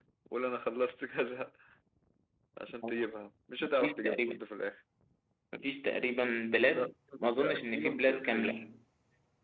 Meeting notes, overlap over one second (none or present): present